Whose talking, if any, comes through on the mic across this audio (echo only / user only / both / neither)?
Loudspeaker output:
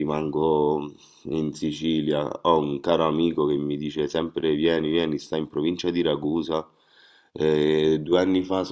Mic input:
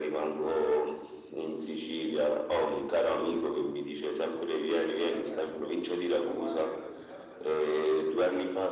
both